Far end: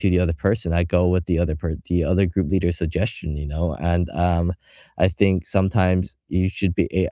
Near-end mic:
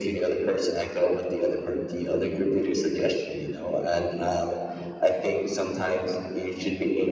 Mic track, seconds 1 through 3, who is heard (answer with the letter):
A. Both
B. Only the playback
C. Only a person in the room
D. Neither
B